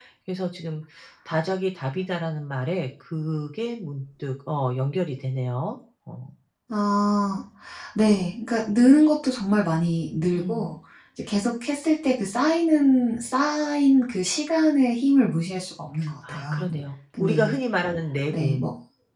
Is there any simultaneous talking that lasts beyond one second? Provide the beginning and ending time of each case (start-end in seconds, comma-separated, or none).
none